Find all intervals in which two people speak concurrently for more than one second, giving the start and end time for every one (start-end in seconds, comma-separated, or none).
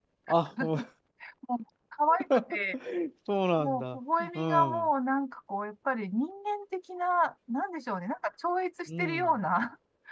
3.6-4.9